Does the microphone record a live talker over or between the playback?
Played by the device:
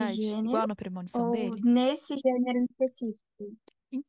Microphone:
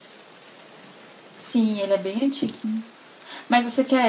Yes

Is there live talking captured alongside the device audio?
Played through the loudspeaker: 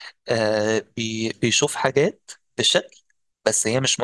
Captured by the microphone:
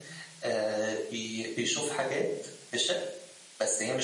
No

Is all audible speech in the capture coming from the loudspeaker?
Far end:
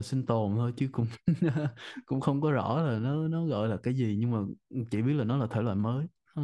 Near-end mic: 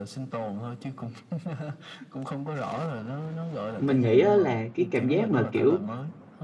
No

